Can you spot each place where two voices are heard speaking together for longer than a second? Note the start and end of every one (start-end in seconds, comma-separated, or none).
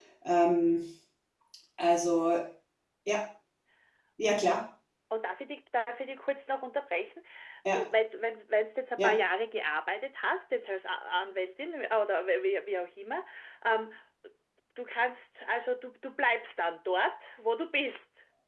none